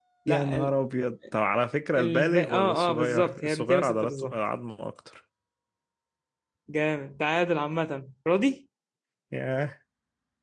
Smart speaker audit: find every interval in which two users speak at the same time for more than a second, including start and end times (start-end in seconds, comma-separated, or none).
1.9-4.4